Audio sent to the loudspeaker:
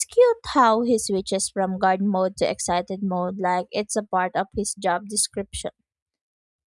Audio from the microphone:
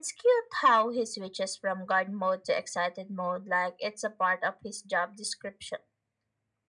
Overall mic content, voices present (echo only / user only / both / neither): echo only